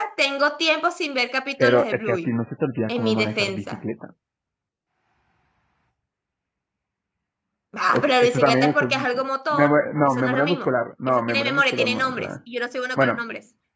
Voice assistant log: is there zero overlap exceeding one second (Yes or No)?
No